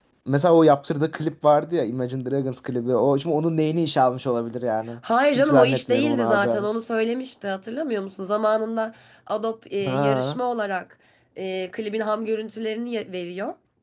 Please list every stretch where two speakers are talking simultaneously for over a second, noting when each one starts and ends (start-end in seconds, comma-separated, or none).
5.3-6.7